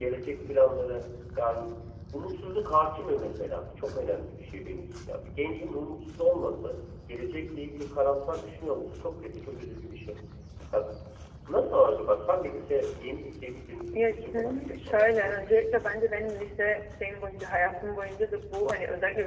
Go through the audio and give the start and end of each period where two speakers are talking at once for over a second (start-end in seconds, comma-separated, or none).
13.9-16.1